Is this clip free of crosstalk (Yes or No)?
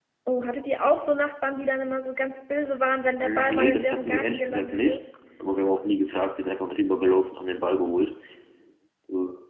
No